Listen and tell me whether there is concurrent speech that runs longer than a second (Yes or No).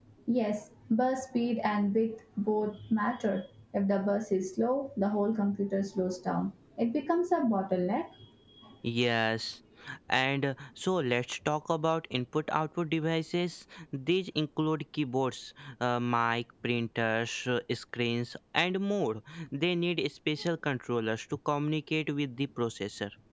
No